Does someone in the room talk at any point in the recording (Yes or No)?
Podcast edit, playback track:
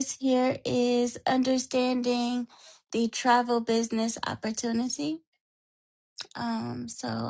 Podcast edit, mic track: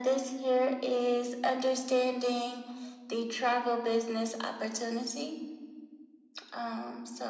No